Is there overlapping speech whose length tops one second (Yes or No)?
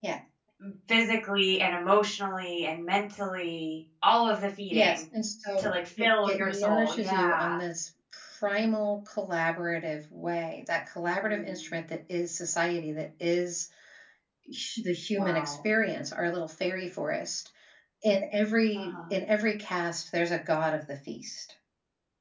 Yes